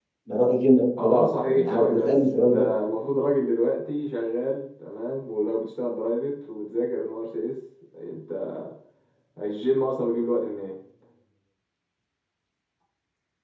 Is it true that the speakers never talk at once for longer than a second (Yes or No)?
No